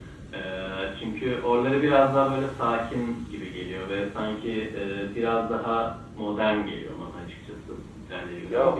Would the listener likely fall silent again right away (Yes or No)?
No